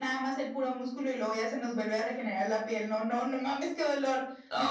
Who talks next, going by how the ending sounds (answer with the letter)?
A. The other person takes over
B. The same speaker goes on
A